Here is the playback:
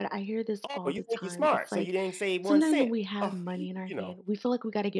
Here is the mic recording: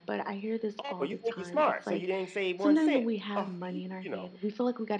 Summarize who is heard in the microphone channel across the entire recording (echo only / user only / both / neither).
echo only